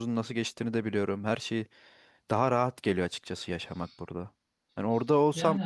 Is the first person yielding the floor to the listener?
No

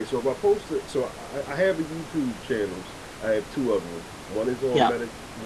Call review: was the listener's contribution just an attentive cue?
Yes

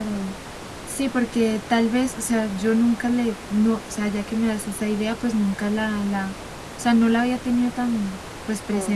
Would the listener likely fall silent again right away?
Yes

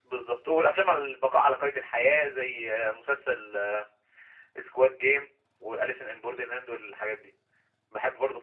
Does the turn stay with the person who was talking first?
No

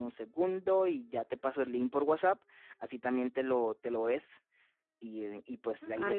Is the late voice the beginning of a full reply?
Yes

